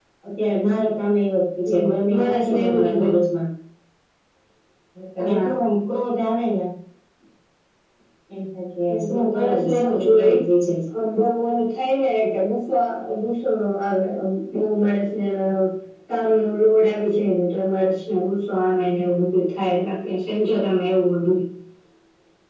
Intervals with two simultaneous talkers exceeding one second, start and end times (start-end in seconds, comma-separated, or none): 1.9-3.1, 8.9-10.3